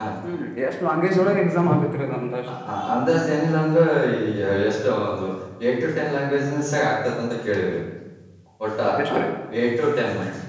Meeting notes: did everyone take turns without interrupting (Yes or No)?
Yes